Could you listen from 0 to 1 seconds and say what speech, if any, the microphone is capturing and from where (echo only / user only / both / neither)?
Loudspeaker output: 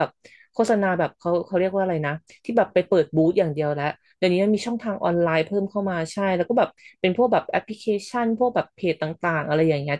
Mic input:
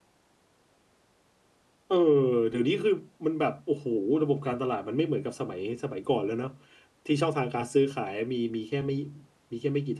neither